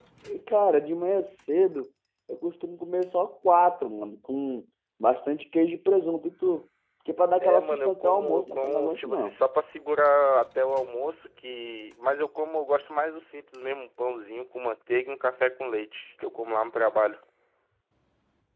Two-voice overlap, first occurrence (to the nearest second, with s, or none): 7 s